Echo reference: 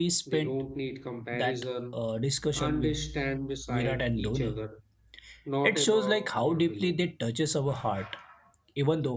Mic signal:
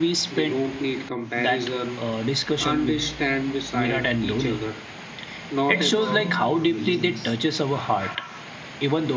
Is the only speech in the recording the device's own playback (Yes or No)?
No